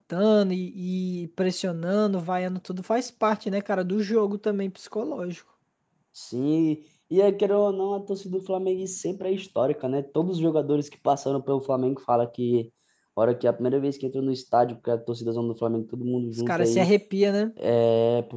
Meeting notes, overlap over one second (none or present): none